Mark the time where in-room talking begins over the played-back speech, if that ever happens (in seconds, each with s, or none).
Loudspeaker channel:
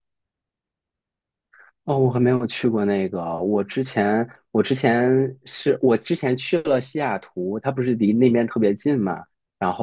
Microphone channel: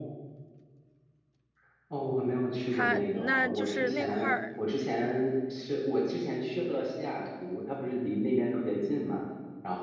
2.7 s